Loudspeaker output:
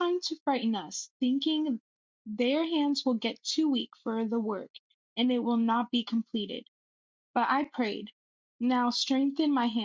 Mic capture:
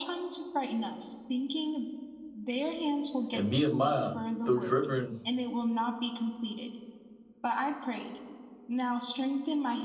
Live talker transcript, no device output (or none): And Nehemiah, though driven